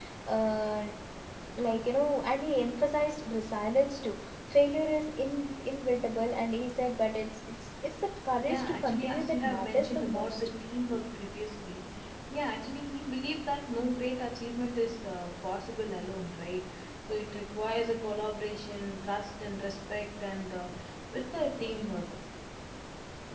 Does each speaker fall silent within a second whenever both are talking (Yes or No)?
No